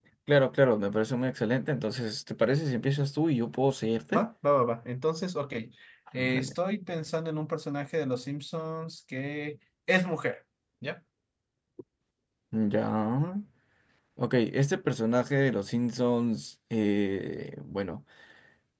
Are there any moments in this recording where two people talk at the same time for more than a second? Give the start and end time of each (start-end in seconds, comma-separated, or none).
none